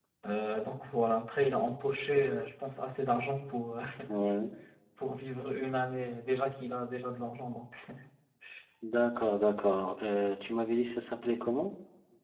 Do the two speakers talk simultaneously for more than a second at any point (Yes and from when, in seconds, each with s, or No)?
No